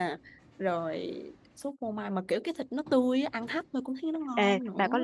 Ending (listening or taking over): taking over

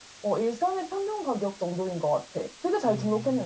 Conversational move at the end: taking over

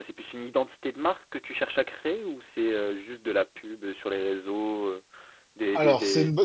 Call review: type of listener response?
taking over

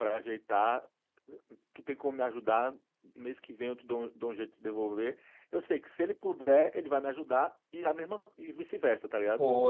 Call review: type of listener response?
taking over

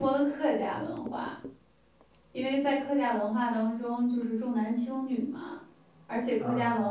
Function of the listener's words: listening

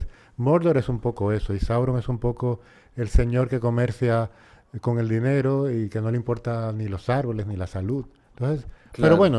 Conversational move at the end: listening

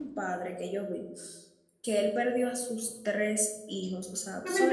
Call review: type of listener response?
taking over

